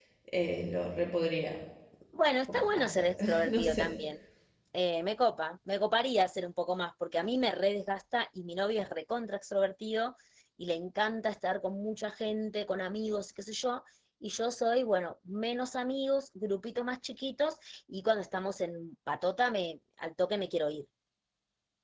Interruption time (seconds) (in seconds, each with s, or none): 2.5 s